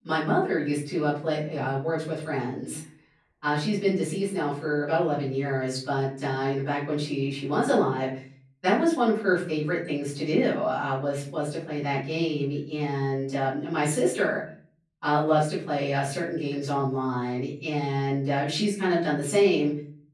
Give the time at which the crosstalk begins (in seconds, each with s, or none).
none